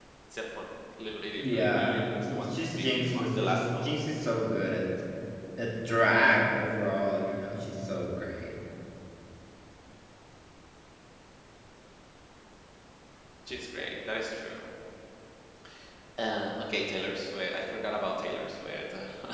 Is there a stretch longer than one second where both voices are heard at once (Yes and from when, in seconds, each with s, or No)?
Yes, from 1.4 s